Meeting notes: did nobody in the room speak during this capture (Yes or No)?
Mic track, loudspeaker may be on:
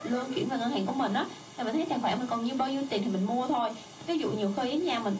Yes